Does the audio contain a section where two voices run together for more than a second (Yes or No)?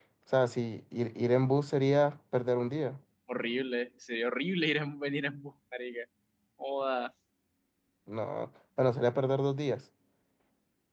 No